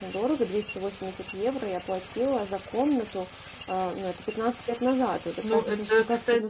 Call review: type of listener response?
taking over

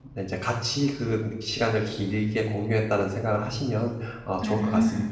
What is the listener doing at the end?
taking over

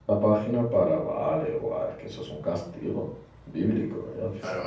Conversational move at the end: taking over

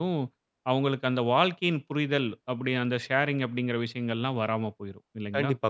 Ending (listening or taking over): taking over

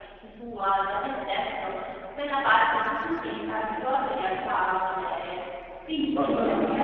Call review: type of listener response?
listening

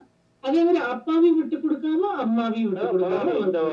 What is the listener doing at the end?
taking over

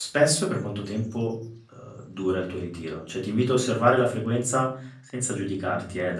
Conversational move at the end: listening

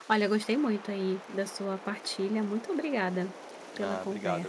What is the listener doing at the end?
taking over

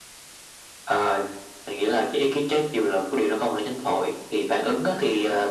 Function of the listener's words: listening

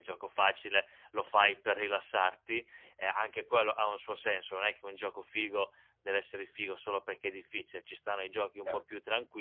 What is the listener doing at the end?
listening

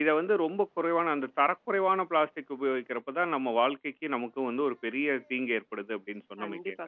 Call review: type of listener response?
taking over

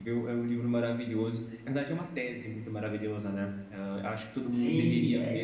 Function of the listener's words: taking over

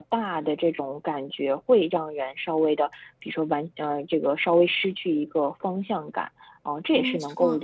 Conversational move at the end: listening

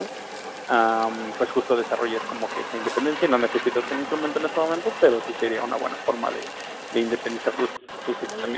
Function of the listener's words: taking over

